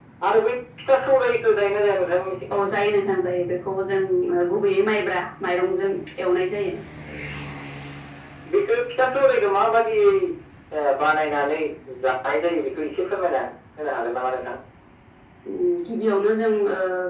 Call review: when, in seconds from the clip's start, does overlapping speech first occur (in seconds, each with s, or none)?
none